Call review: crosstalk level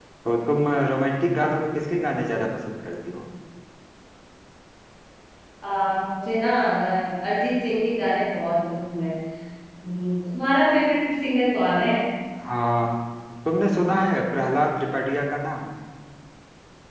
none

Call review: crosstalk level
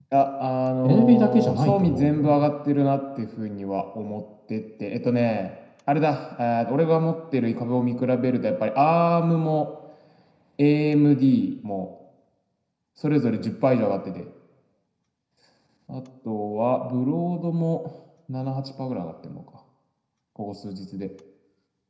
present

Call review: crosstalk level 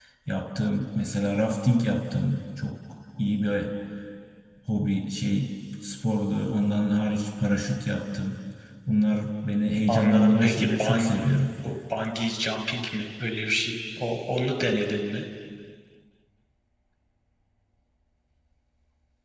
present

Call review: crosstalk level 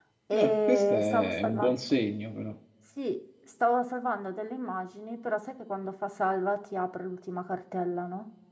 present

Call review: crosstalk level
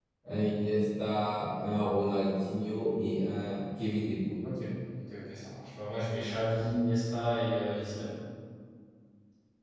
none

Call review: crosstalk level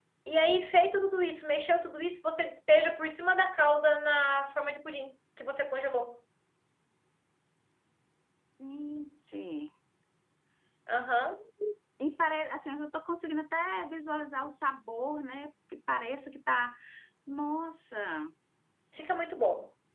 none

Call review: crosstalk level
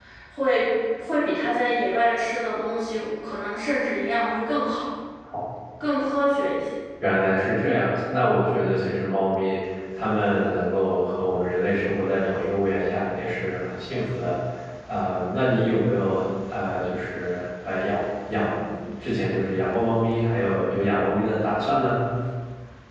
none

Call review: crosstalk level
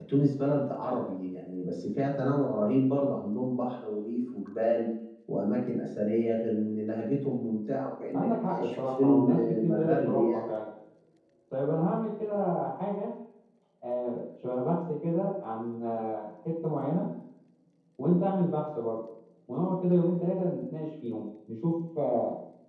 present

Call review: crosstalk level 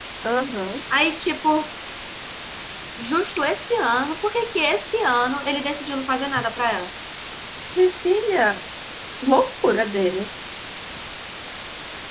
none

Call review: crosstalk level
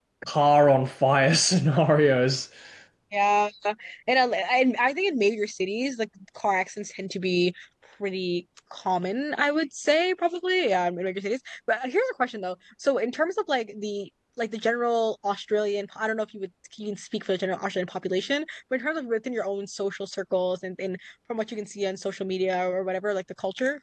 none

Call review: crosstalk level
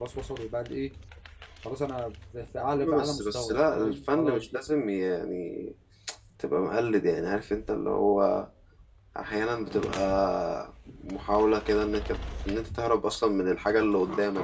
present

